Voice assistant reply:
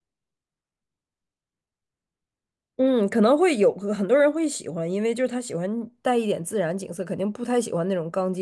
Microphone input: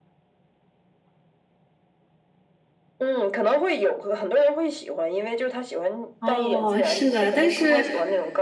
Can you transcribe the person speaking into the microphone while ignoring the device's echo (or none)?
哦，是的，但是，